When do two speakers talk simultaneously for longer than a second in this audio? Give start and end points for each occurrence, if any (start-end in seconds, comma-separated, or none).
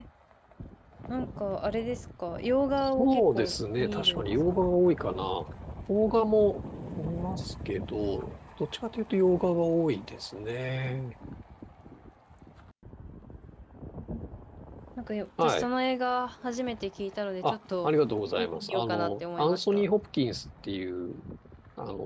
2.8-4.8, 18.4-19.8